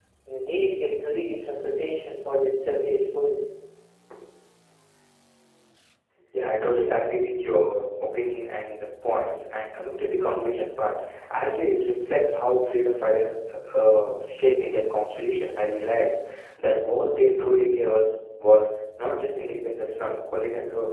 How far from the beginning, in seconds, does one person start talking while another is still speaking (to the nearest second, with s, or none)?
none